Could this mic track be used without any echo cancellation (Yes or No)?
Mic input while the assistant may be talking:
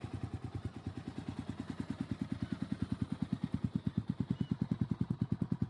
Yes